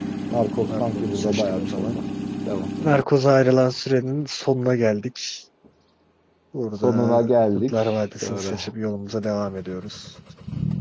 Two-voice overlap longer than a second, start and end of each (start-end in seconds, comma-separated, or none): 0.6-2.0